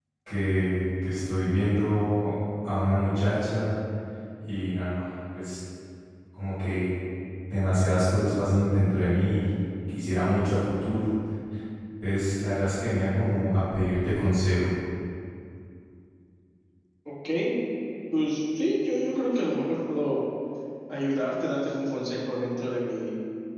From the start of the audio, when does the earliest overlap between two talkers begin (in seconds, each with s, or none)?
none